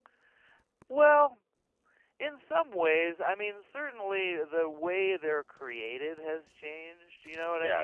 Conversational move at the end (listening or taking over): taking over